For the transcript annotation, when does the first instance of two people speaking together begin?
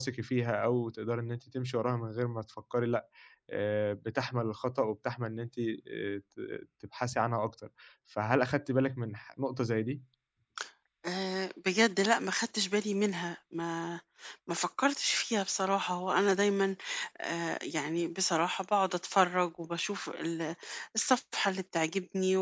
none

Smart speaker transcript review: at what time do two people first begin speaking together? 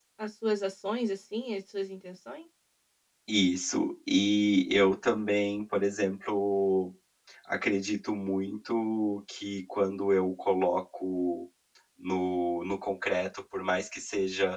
none

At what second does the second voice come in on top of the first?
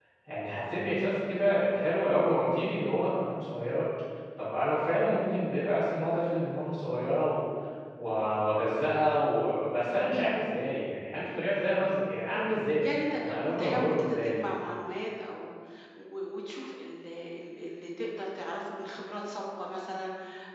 12.8 s

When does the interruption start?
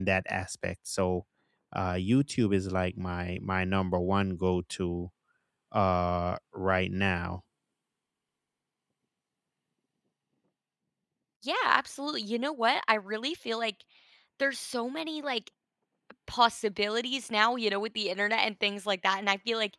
none

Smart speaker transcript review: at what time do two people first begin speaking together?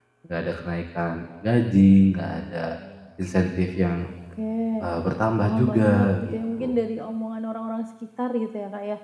5.4 s

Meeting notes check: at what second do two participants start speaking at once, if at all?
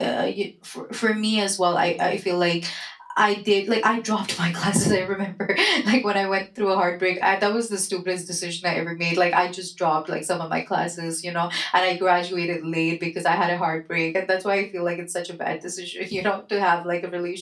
none

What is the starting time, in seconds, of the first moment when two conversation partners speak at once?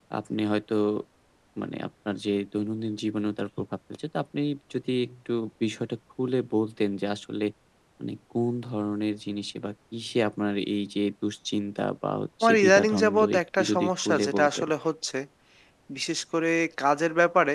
12.4 s

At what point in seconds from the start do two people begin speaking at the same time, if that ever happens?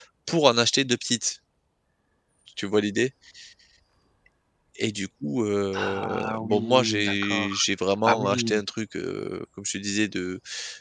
5.7 s

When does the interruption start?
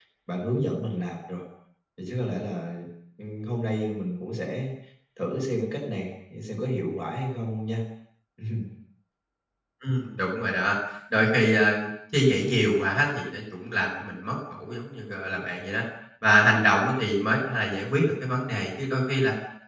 none

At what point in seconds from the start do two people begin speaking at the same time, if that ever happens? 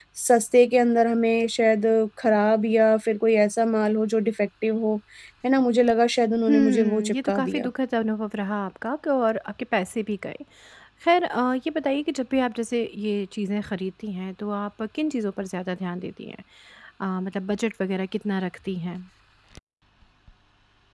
6.5 s

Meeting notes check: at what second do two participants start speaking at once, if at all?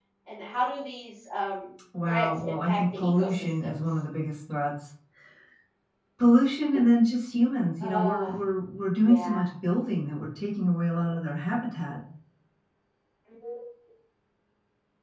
2.0 s

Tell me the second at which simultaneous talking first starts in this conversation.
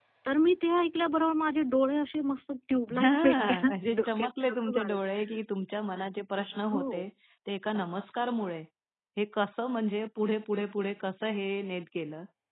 3.0 s

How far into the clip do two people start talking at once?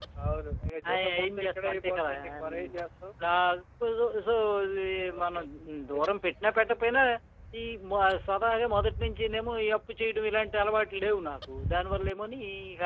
0.9 s

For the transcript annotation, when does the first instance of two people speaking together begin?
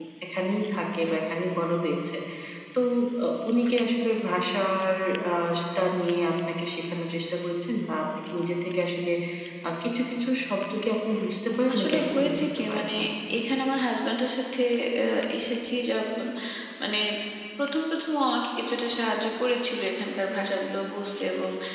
11.7 s

